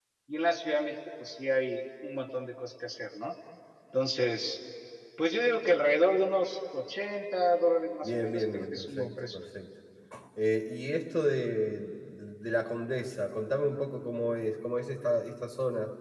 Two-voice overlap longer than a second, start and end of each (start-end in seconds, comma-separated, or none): 8.0-9.4